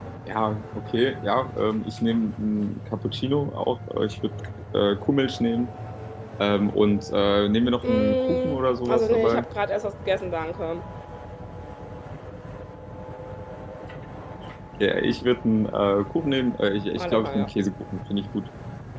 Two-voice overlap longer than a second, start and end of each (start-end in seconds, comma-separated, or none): 7.8-9.4